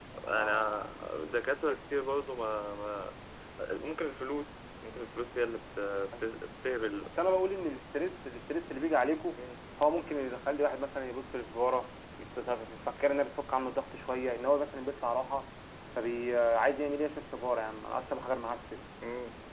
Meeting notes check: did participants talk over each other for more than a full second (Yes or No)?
No